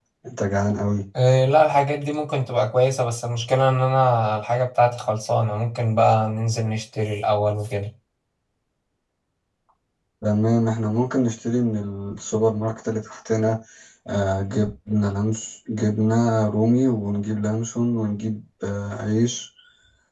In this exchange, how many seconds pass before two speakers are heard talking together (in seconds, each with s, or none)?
none